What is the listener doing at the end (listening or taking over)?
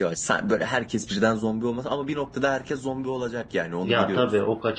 taking over